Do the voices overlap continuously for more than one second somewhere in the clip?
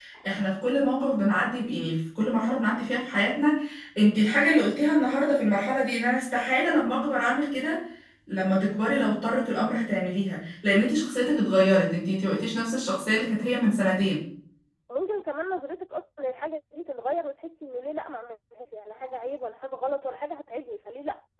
No

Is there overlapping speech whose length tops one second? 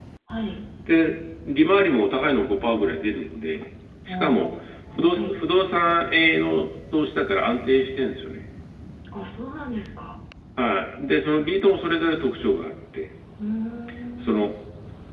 No

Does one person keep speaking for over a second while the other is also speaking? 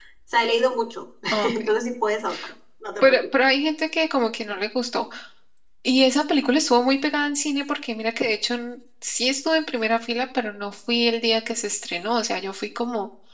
No

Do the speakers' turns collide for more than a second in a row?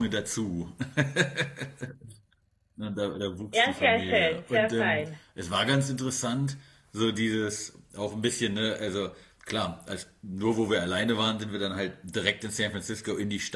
Yes, from 3.5 s

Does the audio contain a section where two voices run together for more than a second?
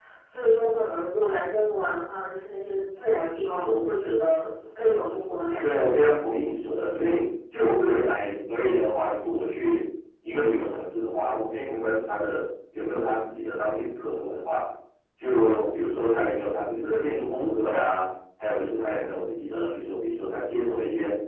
No

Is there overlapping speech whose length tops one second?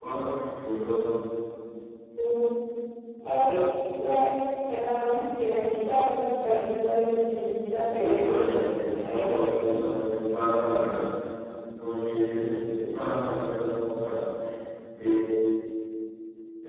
Yes, from 8.0 s

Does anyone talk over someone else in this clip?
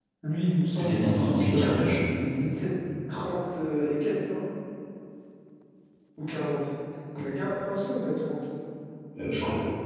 Yes, from 0.8 s

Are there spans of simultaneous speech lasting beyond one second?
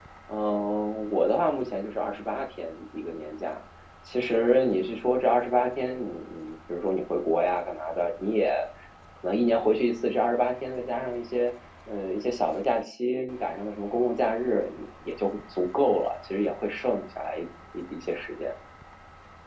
No

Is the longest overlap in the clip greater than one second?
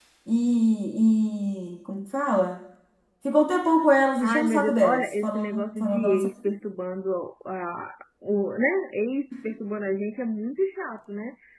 Yes, from 4.2 s

